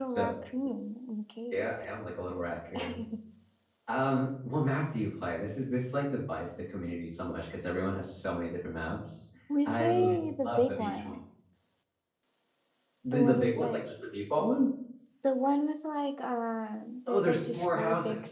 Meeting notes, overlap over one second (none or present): present